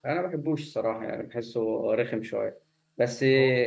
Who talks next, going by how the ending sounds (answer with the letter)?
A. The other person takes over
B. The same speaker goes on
B